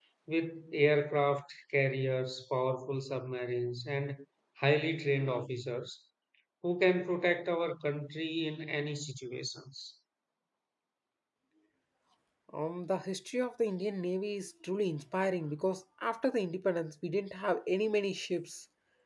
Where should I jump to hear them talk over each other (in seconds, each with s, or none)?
none